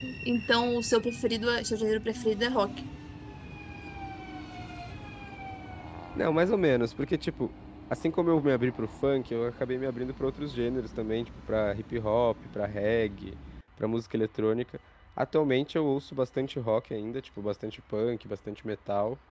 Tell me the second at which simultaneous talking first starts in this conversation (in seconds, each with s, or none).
none